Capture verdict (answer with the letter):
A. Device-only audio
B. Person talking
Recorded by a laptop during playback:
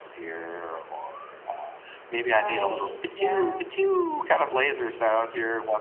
B